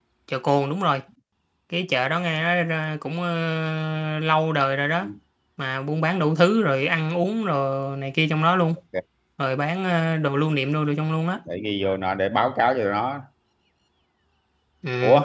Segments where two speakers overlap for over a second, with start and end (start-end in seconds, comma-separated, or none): none